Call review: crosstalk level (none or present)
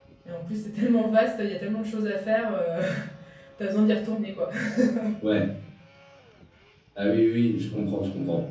none